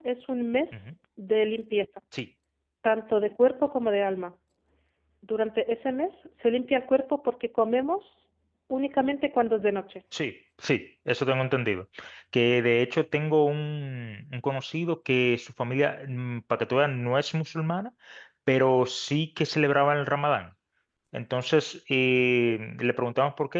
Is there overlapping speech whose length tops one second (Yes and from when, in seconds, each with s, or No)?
No